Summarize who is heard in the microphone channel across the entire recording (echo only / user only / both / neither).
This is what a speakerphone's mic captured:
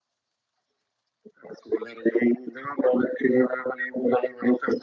echo only